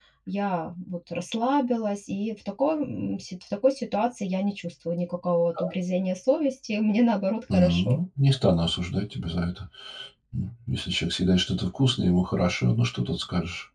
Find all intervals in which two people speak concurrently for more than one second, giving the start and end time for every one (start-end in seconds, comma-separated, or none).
none